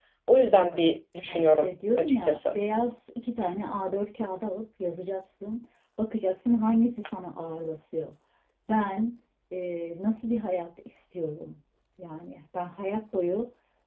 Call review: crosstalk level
present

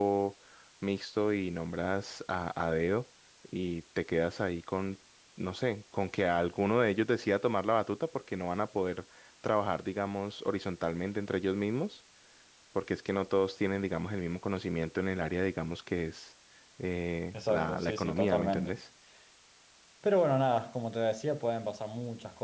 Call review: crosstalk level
present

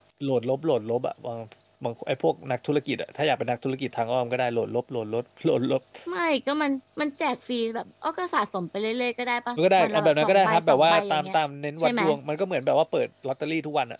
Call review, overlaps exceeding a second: present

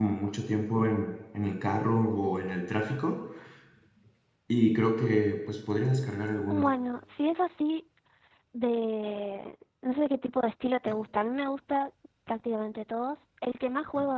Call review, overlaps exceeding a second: none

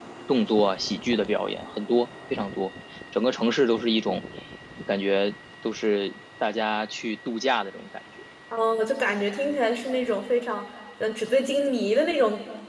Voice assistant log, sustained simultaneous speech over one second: none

